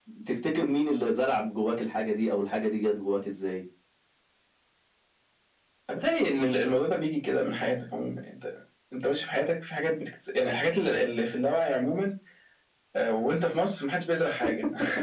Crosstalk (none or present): none